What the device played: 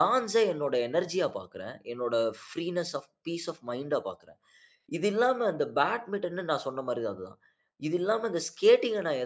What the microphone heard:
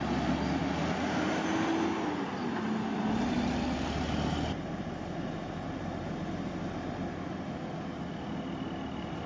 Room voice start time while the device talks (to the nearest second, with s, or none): none